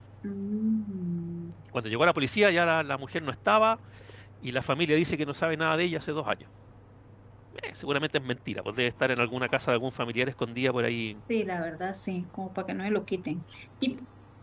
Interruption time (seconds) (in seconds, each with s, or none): none